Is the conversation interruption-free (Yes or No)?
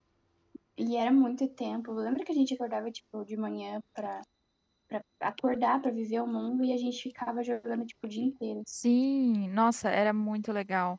Yes